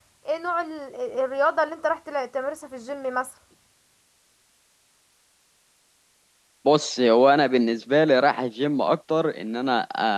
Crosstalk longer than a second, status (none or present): none